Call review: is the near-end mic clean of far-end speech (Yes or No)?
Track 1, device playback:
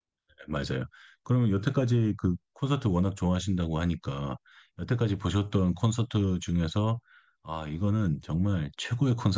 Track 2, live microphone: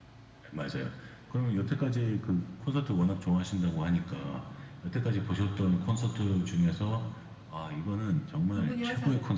No